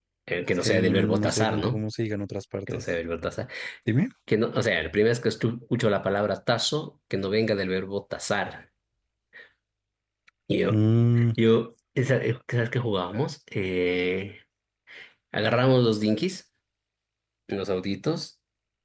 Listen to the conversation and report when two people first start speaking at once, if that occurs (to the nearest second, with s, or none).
1 s